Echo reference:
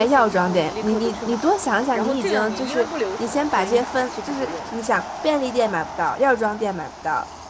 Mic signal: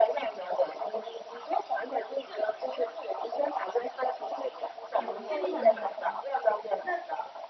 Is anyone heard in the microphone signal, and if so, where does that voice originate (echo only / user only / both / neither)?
both